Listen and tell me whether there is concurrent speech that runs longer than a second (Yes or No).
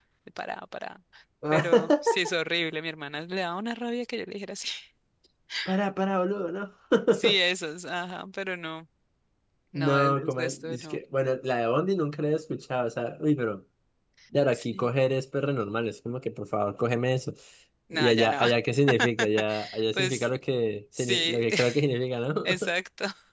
Yes